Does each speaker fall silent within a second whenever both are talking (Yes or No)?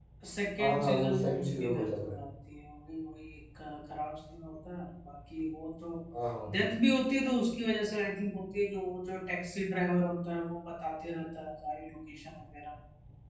No